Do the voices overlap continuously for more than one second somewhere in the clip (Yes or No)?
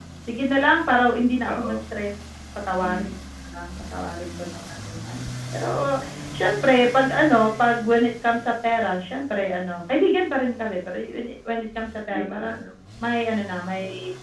No